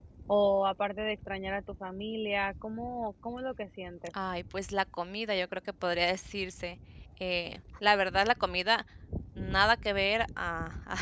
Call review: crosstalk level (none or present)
none